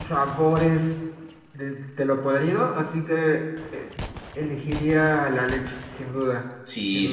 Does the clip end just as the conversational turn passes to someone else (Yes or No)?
Yes